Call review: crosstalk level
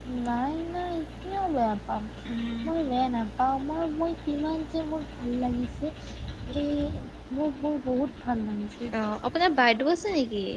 none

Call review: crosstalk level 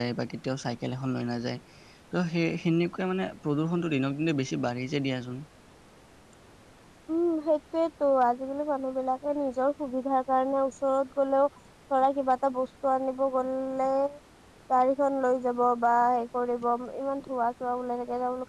none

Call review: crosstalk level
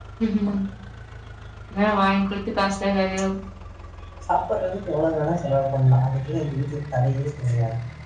none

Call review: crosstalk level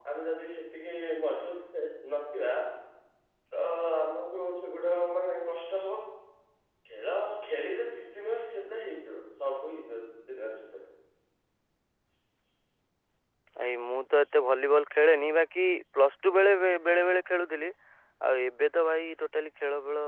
none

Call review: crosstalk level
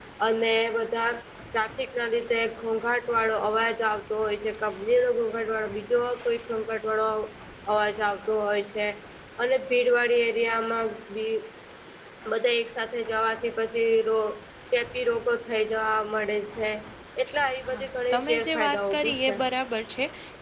present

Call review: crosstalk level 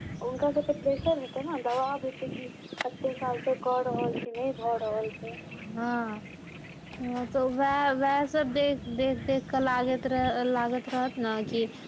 none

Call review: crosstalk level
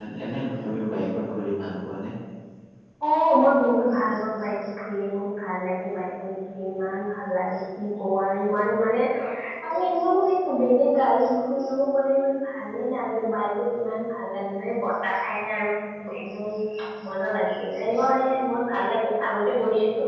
none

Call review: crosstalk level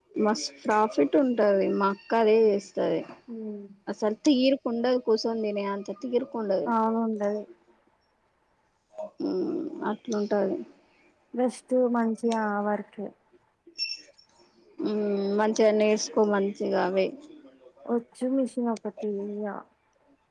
none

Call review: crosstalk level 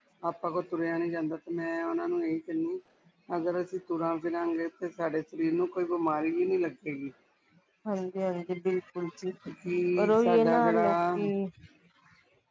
present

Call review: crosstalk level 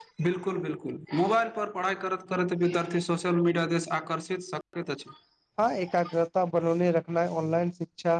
none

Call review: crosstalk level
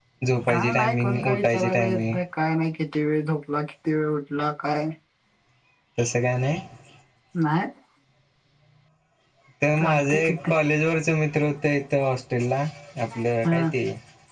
present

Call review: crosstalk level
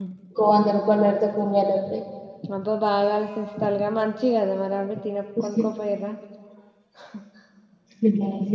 none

